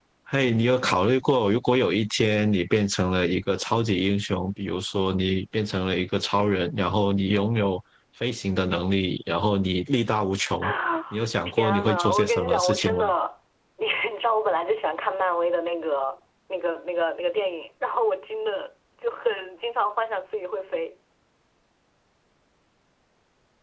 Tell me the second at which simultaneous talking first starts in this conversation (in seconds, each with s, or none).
11.5 s